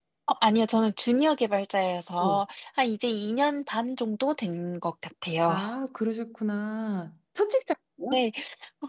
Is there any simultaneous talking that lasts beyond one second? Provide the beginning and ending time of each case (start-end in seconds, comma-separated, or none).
none